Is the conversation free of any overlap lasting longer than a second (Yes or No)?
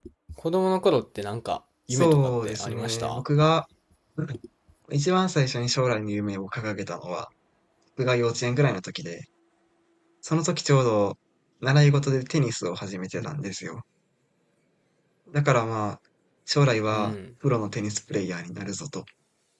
No